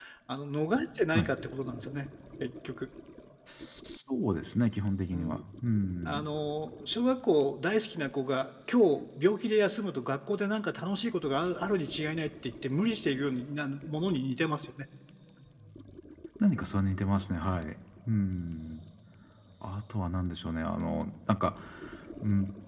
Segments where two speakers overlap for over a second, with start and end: none

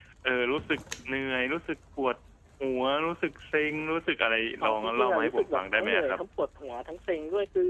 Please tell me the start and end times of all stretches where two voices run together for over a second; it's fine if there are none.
4.6-6.2

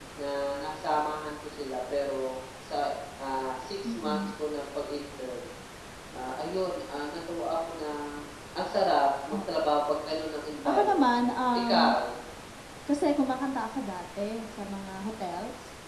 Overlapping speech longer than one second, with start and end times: 10.7-11.9

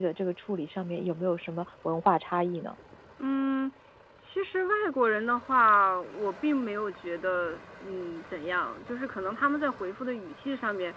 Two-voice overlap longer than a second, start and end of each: none

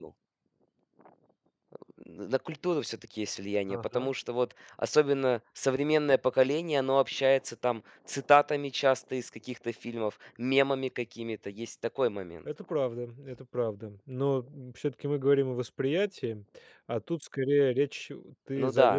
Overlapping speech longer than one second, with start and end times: none

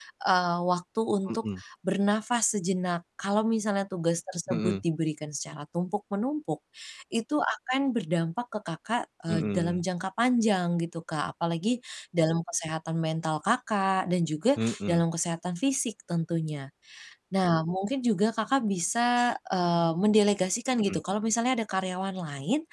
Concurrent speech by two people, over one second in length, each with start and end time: none

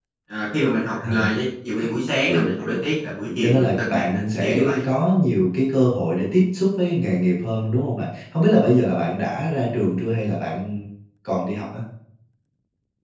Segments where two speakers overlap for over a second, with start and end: 3.4-4.8

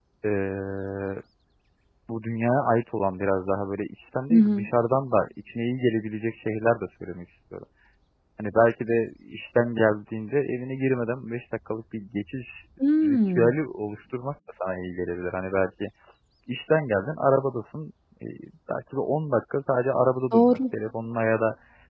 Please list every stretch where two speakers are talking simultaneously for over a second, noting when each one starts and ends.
none

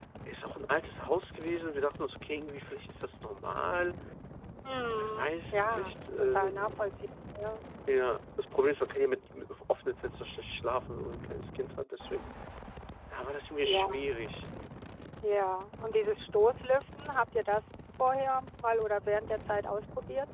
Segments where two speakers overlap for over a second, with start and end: 5.0-6.8

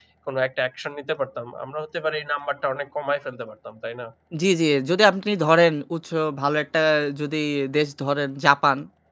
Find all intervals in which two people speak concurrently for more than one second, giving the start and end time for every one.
none

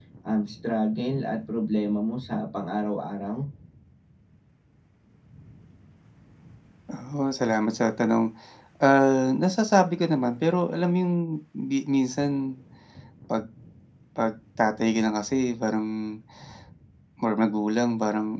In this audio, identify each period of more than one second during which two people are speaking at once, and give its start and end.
none

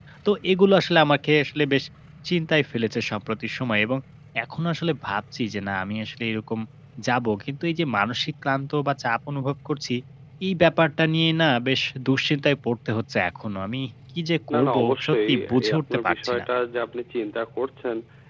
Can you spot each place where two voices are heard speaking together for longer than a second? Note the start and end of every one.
14.5-16.4

